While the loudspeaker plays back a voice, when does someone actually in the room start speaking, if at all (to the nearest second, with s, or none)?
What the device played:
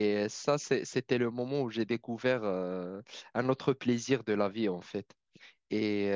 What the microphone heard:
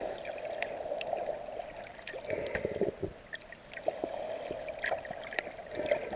none